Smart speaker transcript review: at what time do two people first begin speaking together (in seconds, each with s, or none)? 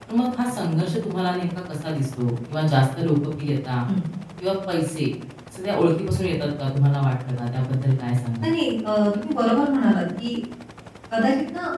none